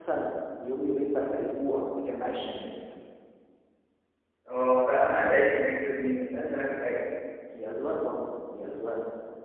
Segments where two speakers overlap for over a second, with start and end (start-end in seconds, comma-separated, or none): none